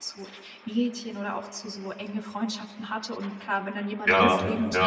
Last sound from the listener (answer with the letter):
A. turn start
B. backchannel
B